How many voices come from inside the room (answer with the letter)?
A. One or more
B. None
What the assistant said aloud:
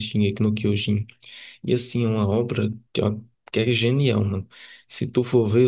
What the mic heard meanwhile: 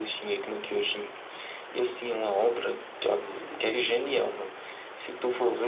A